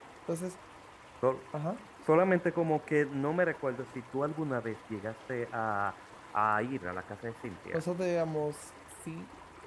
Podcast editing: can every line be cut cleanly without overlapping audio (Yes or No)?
Yes